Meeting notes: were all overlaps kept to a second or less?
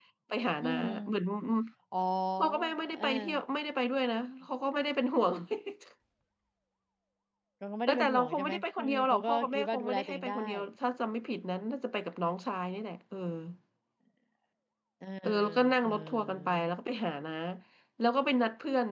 No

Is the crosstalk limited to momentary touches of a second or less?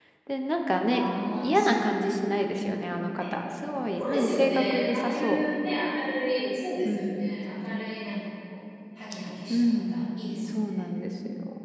No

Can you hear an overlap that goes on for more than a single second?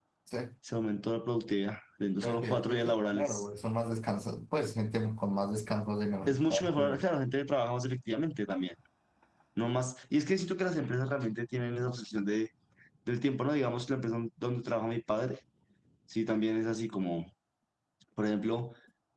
Yes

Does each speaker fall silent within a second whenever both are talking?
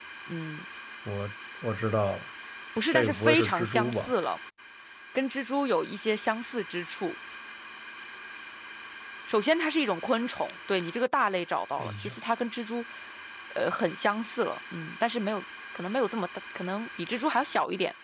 No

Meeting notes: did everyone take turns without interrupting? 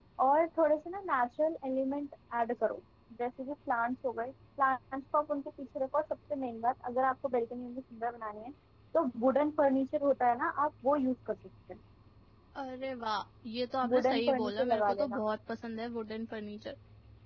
No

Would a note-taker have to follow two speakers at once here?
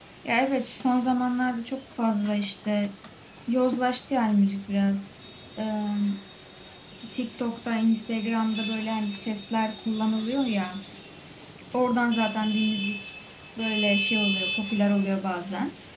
No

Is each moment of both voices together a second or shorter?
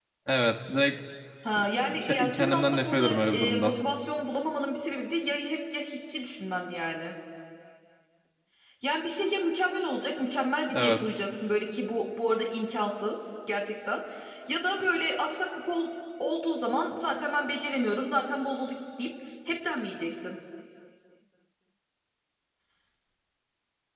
No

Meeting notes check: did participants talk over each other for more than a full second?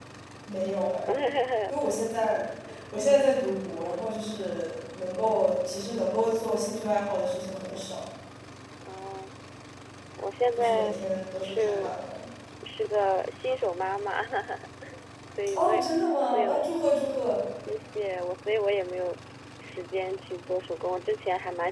No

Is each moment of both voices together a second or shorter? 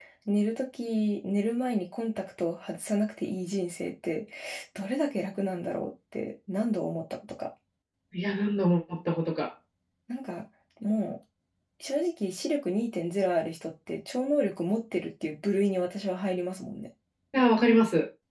Yes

